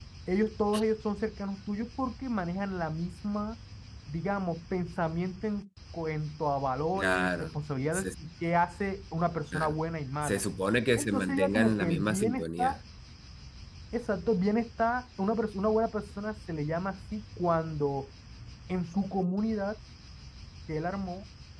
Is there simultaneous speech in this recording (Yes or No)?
Yes